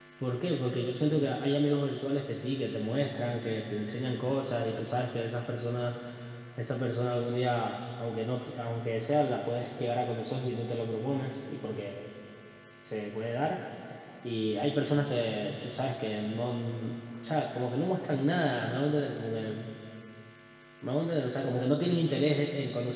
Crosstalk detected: No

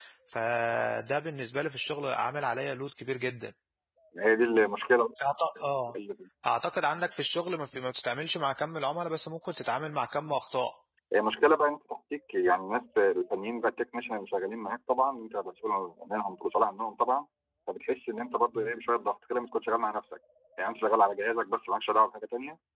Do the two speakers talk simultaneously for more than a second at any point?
No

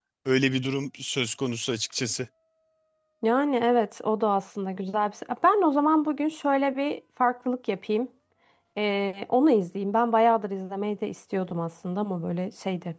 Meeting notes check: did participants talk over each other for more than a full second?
No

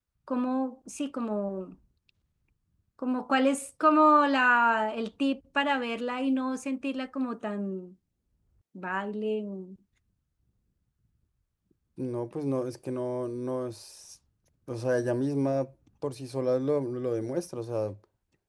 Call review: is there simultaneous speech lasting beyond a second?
No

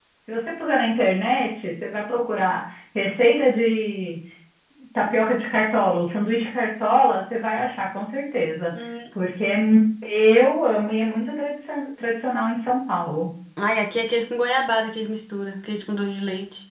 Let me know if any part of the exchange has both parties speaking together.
No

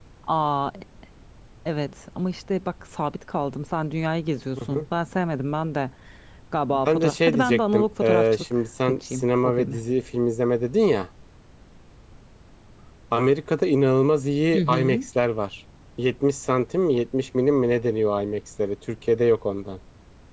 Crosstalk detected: Yes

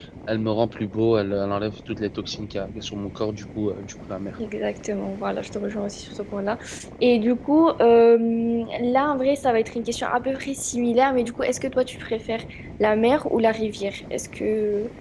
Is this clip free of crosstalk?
Yes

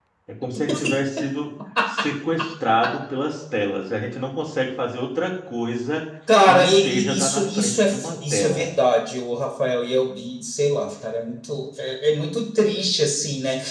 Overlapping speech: Yes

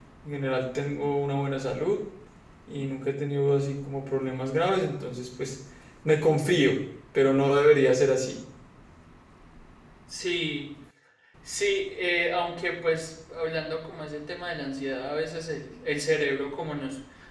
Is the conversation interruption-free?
Yes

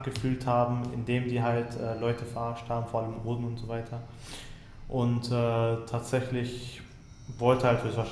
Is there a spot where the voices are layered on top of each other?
No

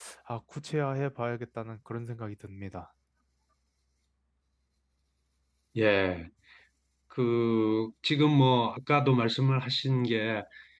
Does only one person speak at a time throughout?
Yes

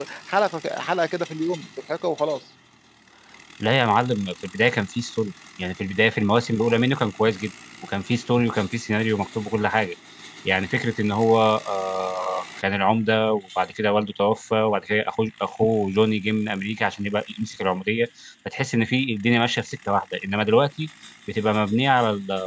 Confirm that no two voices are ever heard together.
Yes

